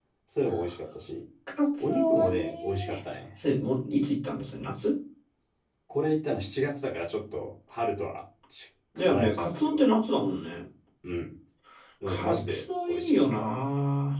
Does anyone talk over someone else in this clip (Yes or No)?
Yes